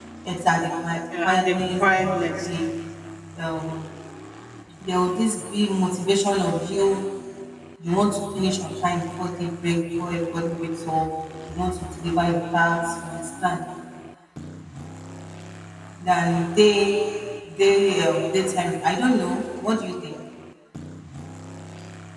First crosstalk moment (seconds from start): 1.2 s

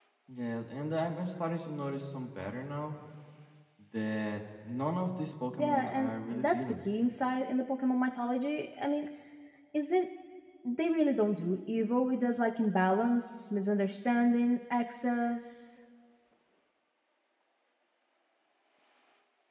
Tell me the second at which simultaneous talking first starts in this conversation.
5.6 s

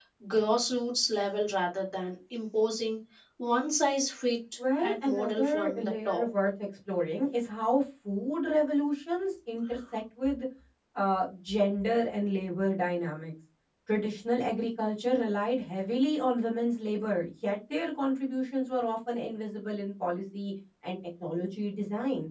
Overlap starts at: 4.6 s

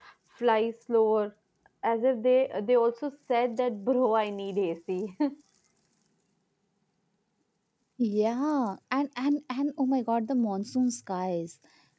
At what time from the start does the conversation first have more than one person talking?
none

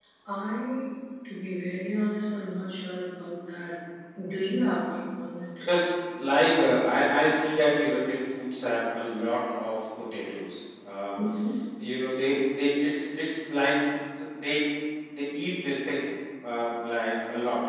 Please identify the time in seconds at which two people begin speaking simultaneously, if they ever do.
none

